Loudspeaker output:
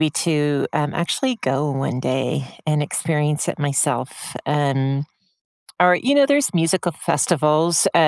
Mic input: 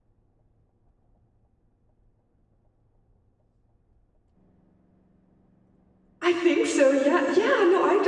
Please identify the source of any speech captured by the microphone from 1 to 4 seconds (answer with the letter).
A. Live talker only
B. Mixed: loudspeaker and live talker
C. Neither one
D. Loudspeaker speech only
C